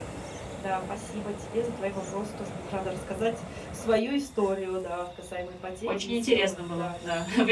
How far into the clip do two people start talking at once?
6 s

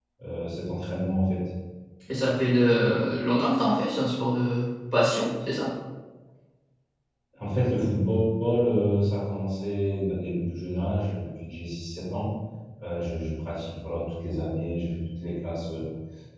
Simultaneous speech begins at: none

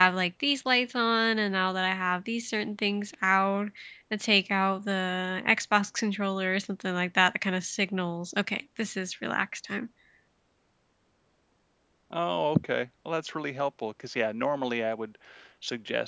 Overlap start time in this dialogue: none

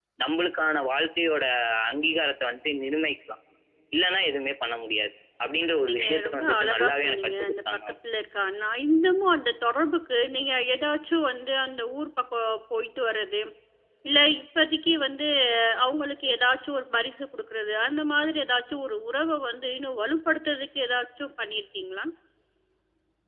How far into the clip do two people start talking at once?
6 s

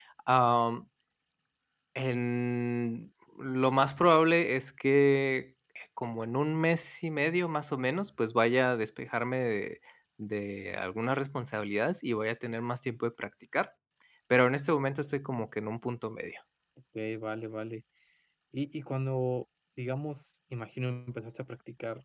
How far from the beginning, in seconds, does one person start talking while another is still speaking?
none

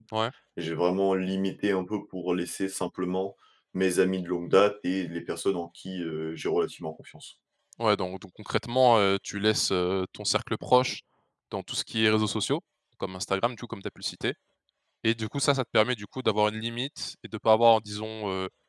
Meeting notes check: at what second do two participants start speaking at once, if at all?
none

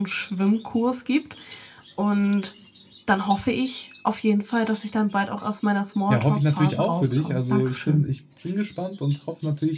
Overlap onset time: 6 s

